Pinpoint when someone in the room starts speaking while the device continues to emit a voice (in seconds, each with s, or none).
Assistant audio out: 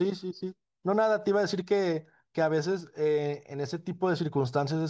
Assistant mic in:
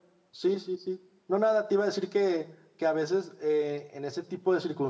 none